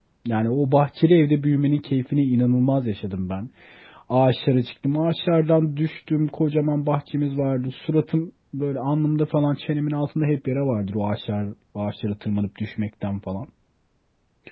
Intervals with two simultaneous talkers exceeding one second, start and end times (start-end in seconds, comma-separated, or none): none